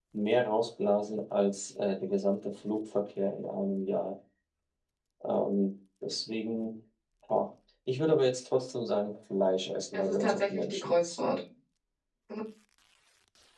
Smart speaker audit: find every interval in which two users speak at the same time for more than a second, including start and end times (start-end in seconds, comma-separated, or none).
9.9-11.4